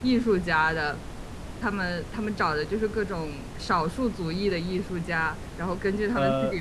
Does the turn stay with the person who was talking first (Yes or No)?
Yes